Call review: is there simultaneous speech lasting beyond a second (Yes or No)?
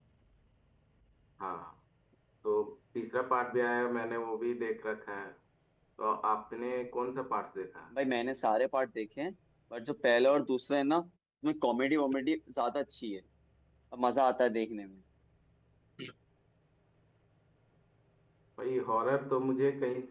No